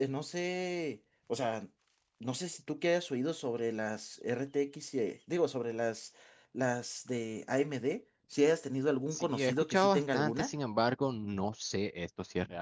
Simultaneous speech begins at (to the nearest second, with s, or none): 9 s